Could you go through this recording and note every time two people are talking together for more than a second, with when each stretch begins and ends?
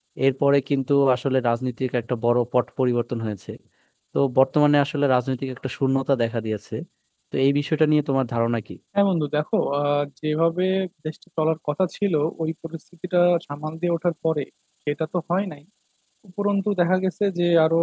none

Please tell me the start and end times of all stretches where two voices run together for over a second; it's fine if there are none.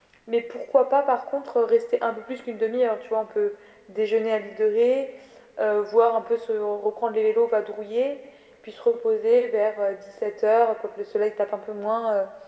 none

